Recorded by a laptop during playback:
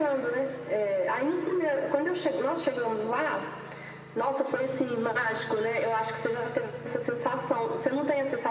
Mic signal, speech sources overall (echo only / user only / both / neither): echo only